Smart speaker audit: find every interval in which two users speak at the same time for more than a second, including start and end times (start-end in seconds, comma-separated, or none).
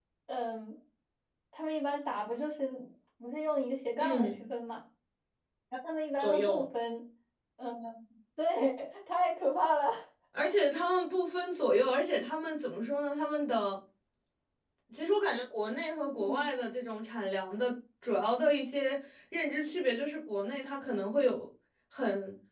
none